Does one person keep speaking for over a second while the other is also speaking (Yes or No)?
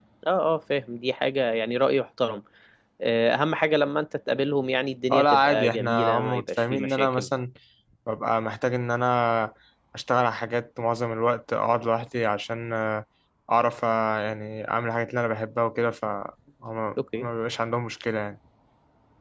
Yes